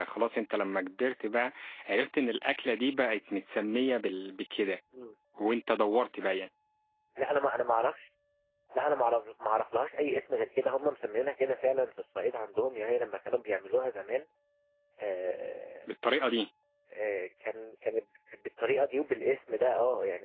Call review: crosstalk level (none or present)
none